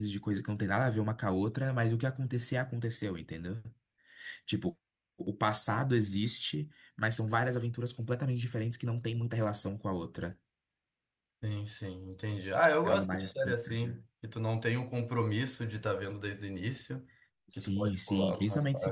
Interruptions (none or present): present